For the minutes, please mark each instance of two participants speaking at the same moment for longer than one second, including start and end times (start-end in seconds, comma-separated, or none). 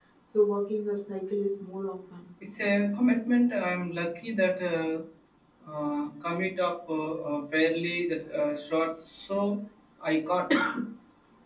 none